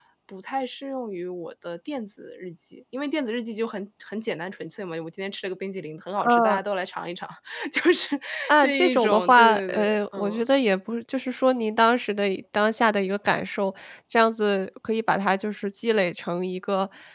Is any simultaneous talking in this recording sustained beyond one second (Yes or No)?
Yes